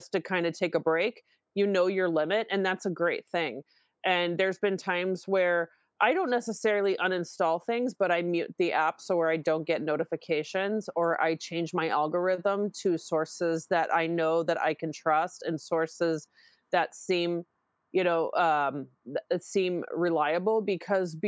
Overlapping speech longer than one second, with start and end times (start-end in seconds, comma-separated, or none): none